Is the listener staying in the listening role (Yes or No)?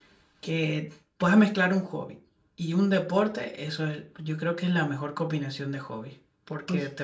Yes